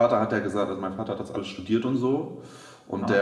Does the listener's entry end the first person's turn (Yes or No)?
No